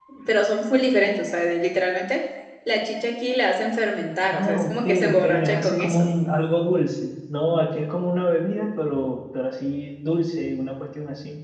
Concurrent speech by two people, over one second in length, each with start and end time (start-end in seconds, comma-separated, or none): 4.3-6.1